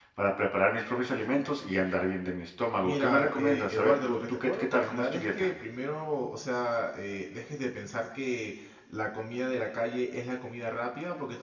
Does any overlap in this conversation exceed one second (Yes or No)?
Yes